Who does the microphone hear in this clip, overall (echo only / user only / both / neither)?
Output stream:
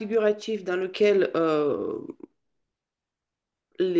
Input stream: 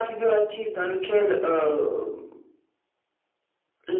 echo only